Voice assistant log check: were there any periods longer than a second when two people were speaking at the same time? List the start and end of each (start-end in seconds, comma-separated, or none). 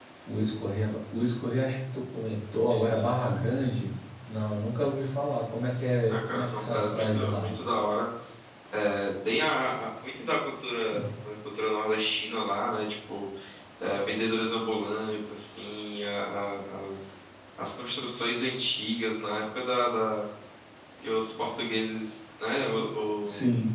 6.1-7.5